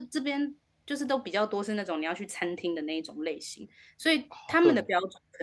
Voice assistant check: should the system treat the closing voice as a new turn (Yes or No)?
No